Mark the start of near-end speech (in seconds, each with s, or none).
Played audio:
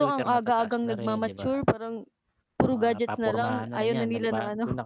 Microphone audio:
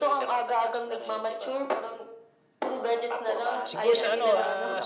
3.6 s